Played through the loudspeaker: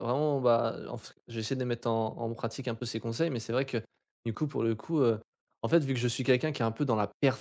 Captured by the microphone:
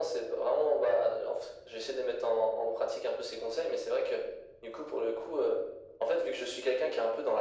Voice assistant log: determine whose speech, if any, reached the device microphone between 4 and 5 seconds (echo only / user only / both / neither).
echo only